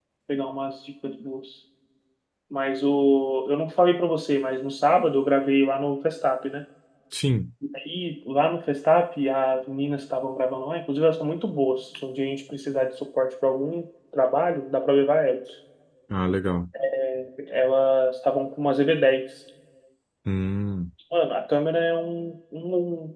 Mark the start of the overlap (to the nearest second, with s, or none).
none